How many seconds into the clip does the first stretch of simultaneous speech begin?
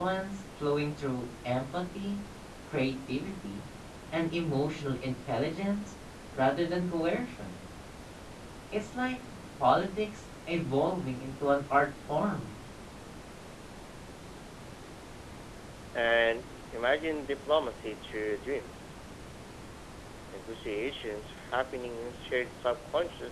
none

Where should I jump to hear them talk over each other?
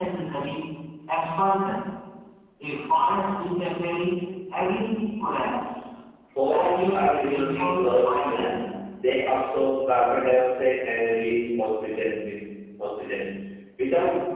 6 s

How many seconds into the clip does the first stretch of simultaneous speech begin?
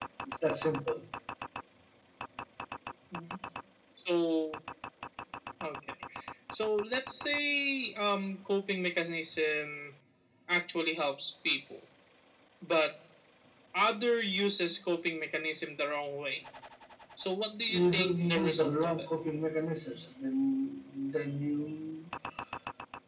18 s

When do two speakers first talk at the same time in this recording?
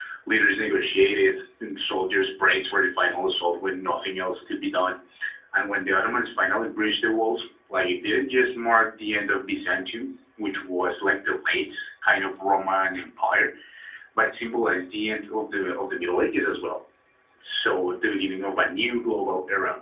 none

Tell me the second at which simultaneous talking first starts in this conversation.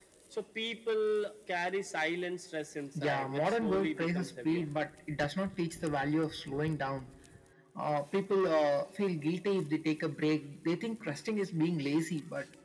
3 s

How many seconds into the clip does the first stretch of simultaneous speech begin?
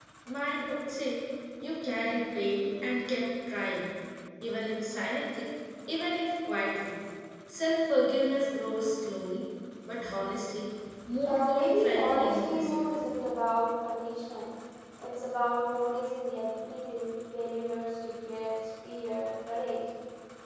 11 s

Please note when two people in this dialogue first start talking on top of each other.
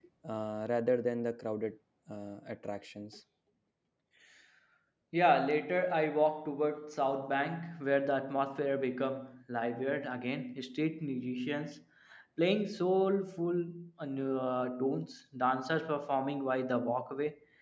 none

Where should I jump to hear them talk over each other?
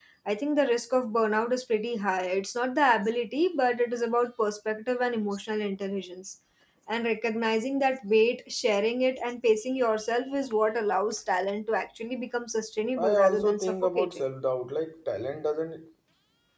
13 s

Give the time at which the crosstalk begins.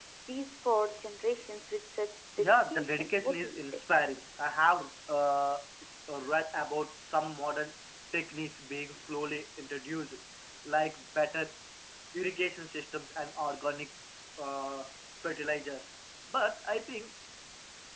2 s

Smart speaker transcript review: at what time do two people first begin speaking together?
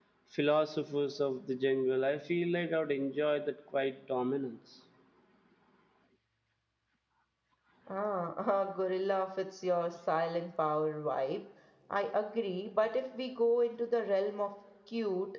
none

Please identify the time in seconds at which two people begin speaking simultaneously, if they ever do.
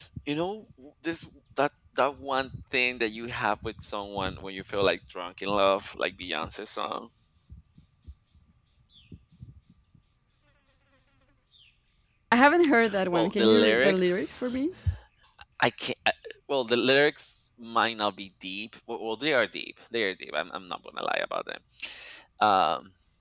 13 s

